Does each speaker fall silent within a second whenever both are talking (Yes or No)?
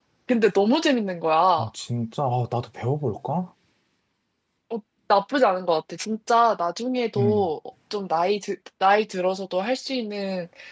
Yes